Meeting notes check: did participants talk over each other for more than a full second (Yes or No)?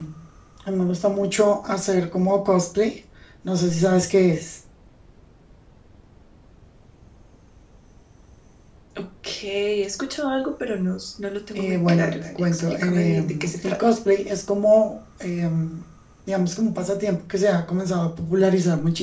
Yes